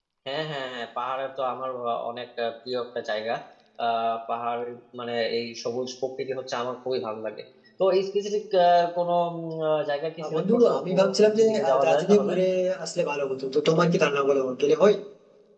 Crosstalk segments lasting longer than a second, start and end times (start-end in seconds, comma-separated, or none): 10.2-12.3